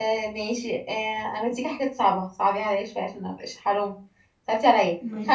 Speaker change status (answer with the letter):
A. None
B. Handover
A